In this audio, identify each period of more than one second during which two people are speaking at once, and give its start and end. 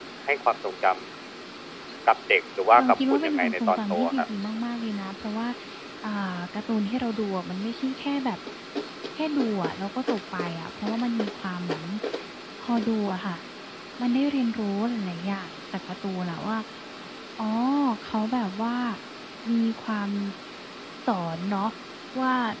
2.8-4.3

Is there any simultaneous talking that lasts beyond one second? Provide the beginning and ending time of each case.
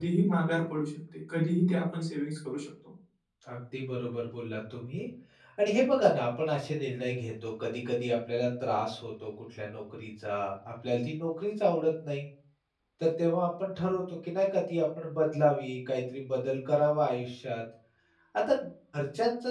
none

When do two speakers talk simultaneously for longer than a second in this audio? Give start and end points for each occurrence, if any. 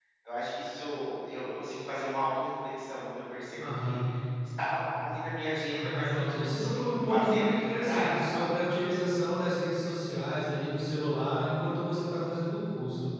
5.7-8.4

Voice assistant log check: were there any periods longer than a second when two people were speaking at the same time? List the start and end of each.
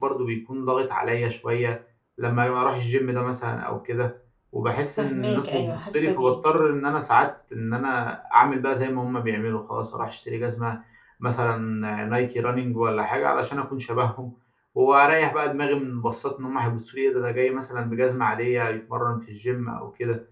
5.0-6.3

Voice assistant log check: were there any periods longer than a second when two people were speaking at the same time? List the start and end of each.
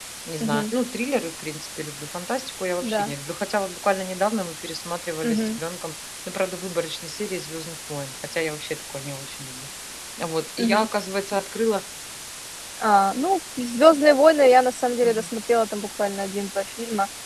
none

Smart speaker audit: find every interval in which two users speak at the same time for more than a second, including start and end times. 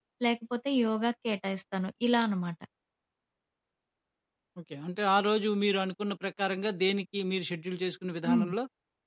none

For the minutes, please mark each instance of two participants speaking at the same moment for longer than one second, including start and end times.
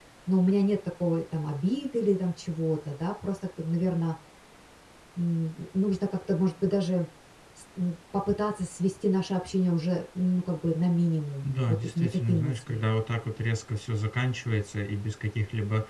11.4-12.8

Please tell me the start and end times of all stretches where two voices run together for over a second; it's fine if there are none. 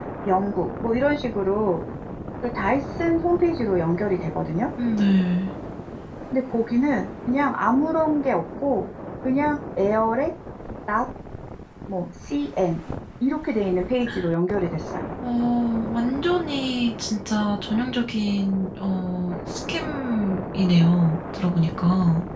none

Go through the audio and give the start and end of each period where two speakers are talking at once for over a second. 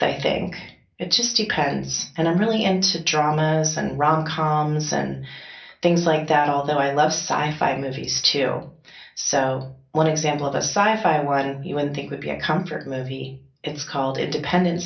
none

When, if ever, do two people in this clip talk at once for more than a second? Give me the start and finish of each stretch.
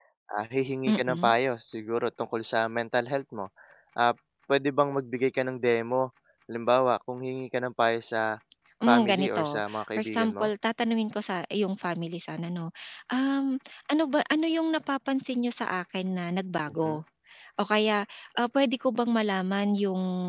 8.9-10.5

